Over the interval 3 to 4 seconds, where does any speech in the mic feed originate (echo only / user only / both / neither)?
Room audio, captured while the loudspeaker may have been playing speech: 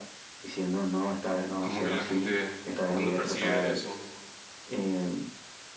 both